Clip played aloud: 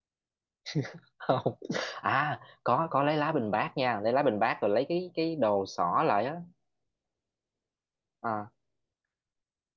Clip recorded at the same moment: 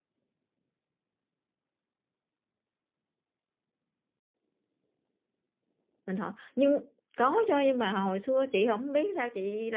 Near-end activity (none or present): present